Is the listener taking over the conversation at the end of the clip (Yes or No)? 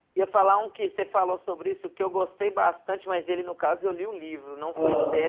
No